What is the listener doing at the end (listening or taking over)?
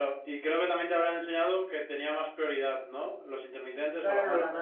taking over